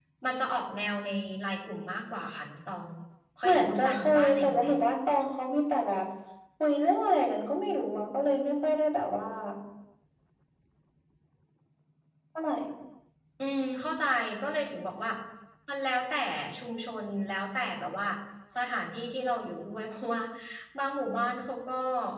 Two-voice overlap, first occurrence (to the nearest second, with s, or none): 3 s